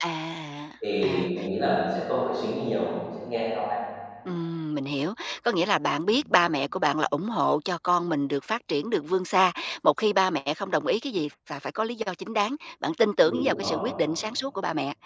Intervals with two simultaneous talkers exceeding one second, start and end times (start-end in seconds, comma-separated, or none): none